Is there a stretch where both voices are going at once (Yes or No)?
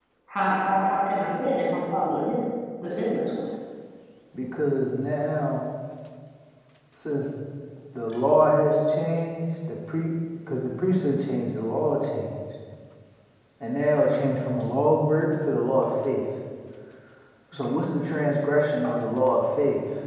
No